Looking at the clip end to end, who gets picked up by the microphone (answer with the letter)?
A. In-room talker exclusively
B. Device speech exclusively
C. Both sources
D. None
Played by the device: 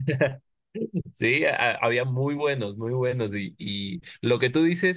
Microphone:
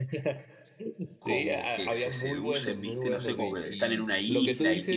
C